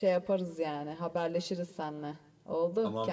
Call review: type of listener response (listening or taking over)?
taking over